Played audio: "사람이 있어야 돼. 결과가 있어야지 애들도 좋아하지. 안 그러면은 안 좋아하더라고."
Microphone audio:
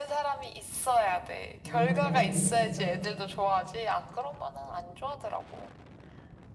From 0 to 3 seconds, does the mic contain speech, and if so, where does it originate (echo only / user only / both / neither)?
both